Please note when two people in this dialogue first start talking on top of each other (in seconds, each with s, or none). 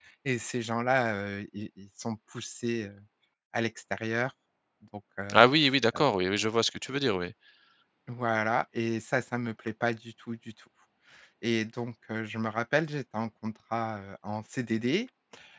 none